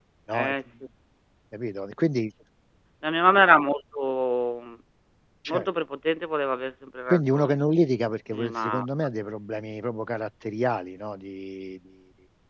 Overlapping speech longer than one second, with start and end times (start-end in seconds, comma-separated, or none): none